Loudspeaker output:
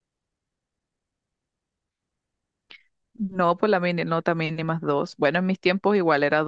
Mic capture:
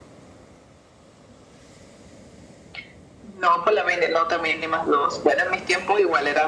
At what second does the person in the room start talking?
none

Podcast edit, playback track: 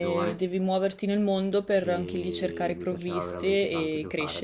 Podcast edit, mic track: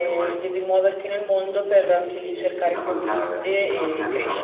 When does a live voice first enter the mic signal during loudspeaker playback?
3 s

